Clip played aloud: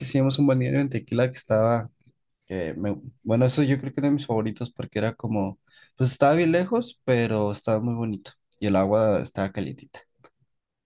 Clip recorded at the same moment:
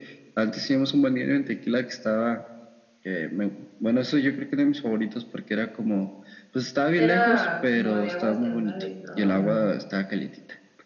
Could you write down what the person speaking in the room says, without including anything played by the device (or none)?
Era como de aguas termales, ¿no? ¿O no?